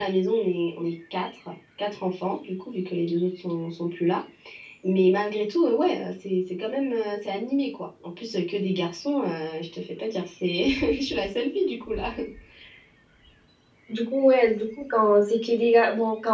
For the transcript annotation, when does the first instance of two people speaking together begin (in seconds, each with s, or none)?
none